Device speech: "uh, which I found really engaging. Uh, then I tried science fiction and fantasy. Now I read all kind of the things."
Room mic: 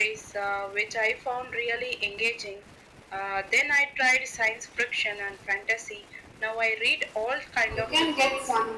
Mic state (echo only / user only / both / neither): both